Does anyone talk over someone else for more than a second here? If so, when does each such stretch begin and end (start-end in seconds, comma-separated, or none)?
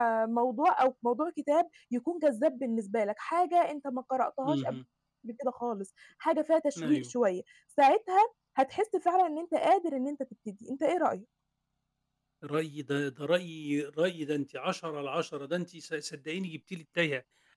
none